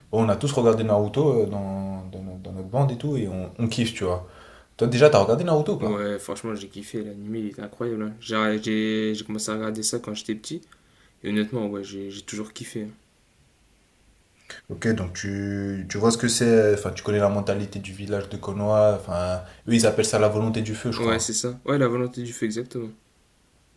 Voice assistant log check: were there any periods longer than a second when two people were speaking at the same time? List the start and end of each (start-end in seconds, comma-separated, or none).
none